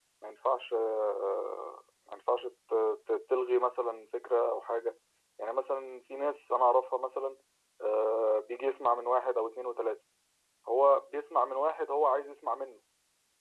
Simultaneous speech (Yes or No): No